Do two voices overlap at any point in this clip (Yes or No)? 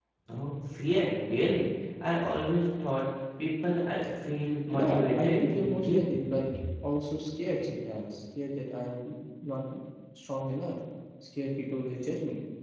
Yes